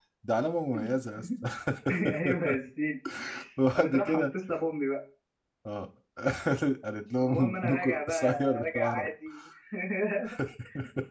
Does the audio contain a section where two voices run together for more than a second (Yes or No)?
Yes